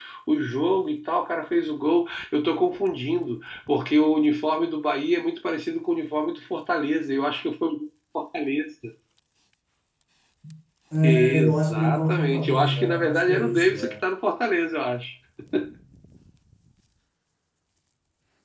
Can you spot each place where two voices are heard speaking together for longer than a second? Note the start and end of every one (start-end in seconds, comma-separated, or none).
11.0-13.9